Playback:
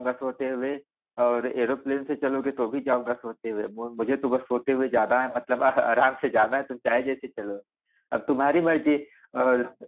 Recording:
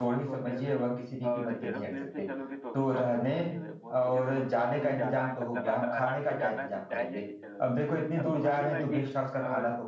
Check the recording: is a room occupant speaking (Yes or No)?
Yes